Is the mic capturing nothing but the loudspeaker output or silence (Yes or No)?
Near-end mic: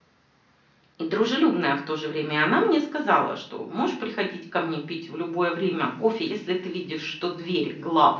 No